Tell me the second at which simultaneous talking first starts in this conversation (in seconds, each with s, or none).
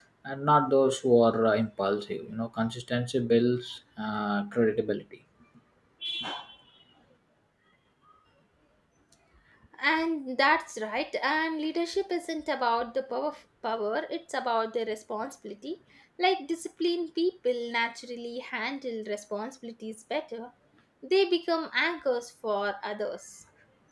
none